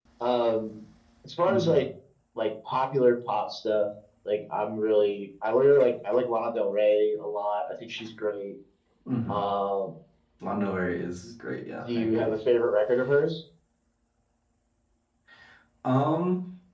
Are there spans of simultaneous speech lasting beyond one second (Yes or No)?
No